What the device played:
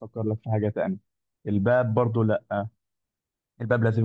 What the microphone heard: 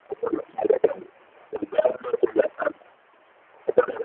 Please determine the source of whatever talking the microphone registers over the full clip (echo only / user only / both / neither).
echo only